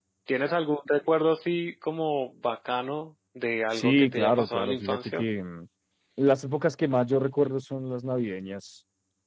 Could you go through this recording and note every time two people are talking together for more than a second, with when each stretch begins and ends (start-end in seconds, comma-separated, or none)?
3.7-5.2